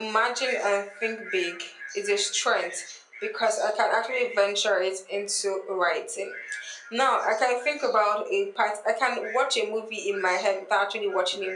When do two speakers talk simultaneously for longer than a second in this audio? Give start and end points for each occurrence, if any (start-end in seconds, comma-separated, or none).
none